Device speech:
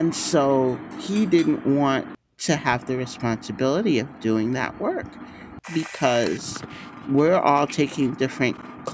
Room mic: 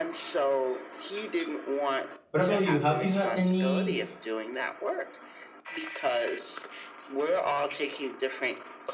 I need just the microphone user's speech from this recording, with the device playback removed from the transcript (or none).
what about you? Have you had any